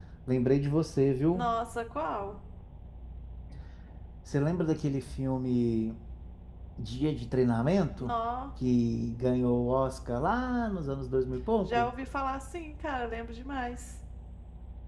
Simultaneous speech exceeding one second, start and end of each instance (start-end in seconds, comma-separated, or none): none